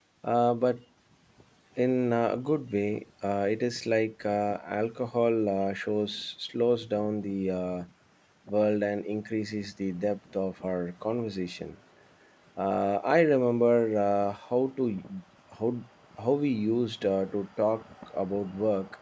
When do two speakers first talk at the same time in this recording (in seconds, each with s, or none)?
none